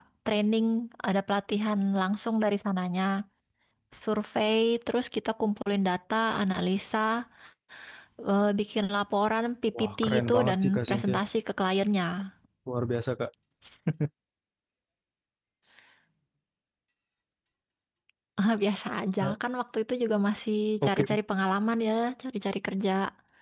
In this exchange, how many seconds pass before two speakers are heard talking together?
9.8 s

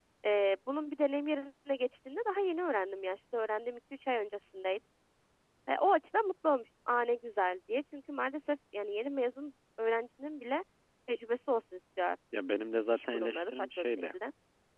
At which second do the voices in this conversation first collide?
12.9 s

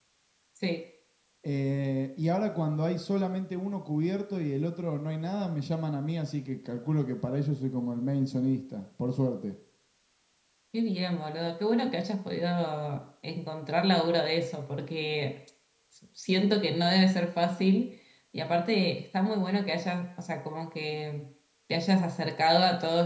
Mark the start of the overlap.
none

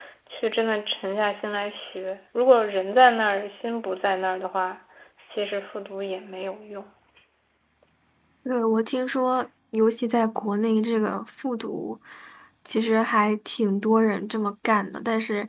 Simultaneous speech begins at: none

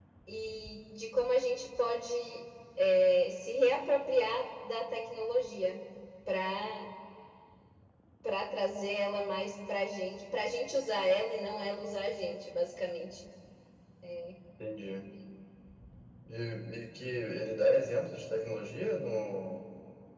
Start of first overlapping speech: none

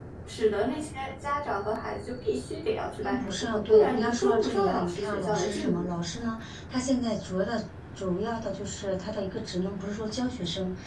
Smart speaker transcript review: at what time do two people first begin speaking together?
3.0 s

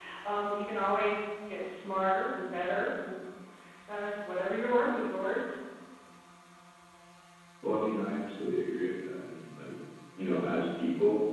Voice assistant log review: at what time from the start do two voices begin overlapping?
none

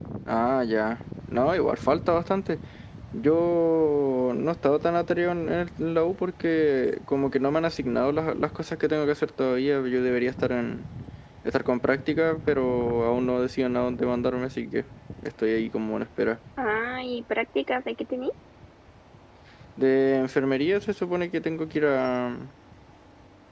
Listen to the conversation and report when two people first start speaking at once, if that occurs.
none

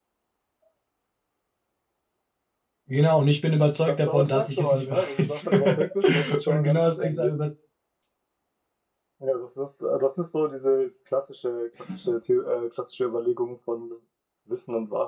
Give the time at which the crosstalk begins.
3.9 s

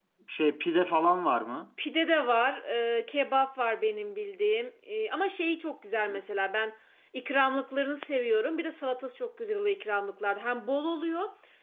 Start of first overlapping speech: none

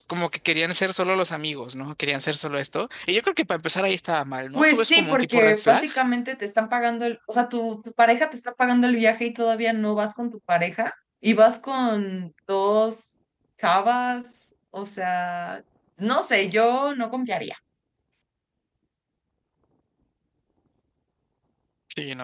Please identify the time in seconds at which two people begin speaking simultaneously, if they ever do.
4.5 s

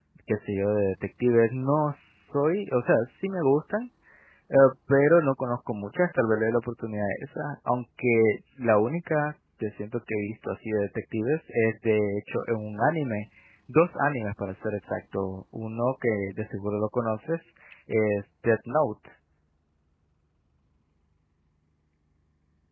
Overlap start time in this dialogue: none

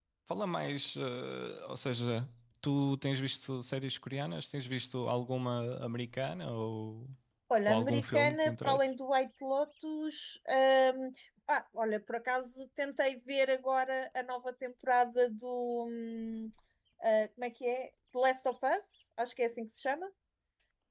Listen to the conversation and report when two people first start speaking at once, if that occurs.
7.7 s

